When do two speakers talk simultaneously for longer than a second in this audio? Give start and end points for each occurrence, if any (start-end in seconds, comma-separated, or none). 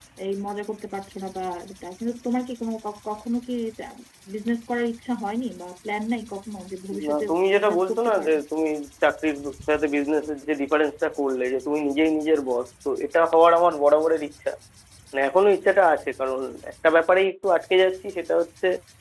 7.1-8.3